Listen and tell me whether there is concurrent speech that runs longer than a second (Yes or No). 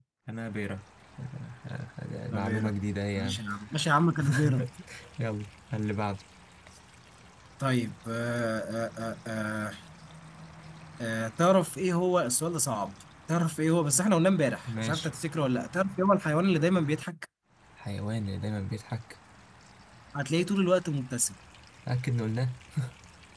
No